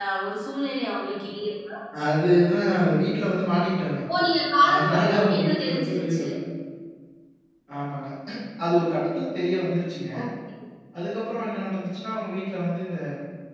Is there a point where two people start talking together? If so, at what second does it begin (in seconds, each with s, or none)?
4.7 s